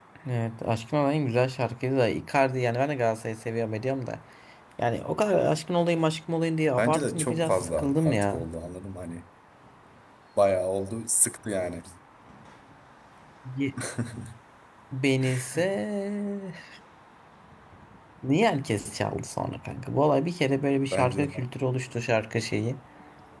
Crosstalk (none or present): present